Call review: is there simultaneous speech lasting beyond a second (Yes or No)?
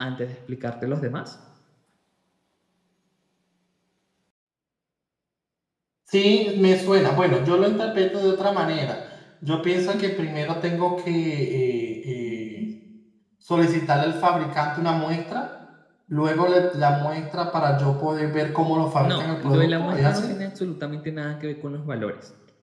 Yes